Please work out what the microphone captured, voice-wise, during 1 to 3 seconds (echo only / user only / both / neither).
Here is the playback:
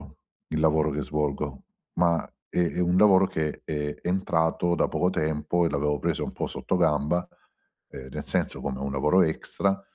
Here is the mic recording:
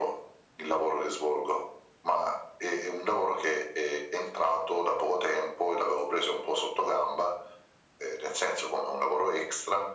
echo only